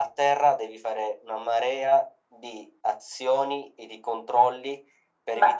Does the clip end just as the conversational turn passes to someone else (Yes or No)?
Yes